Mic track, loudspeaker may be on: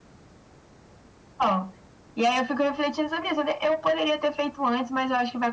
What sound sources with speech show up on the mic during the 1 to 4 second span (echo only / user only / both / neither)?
echo only